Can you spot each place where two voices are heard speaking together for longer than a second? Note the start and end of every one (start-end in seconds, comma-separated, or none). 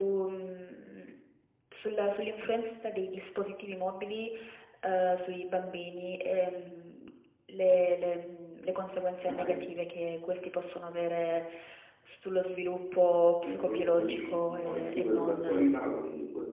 13.4-15.6